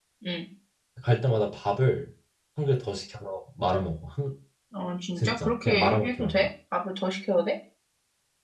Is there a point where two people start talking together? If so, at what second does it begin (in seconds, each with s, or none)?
5.2 s